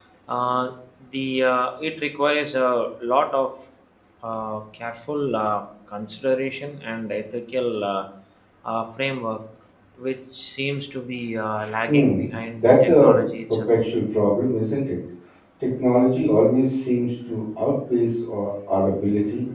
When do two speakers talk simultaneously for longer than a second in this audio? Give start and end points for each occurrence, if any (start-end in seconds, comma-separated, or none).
11.9-13.1